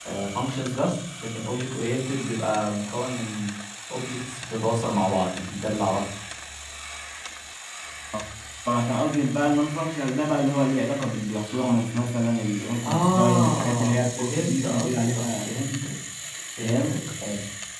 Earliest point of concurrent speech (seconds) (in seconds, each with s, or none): 12.8 s